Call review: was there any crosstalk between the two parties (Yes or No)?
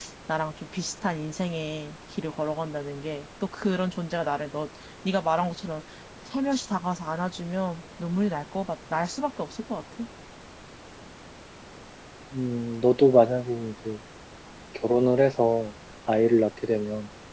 No